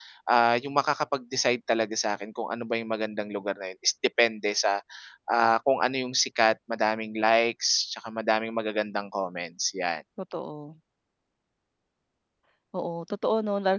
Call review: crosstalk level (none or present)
none